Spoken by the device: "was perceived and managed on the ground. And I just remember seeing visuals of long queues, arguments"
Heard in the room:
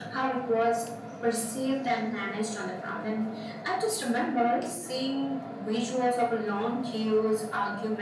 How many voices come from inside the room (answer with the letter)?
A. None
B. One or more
A